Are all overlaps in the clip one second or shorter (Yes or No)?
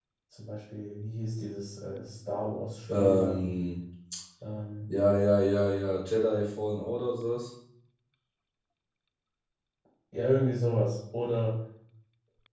Yes